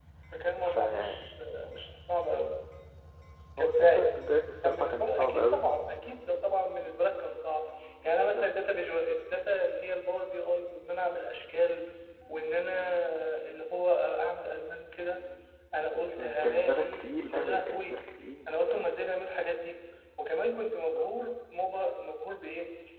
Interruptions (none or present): present